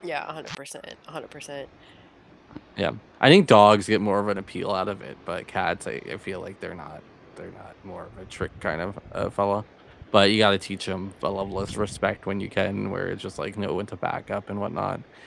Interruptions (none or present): none